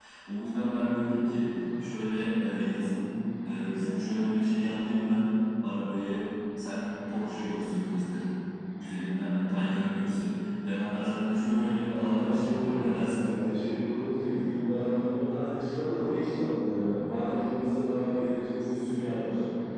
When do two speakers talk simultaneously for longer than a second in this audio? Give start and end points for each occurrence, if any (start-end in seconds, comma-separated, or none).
11.9-13.3